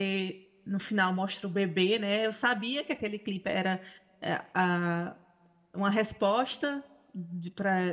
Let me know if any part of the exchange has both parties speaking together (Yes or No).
No